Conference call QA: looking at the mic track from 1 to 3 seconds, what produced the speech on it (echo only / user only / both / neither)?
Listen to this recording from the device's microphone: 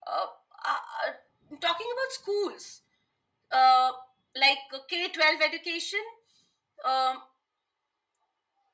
echo only